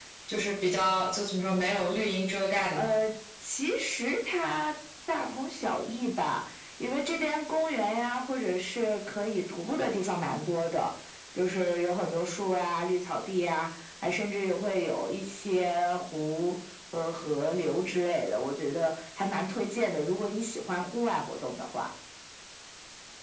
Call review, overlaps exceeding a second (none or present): none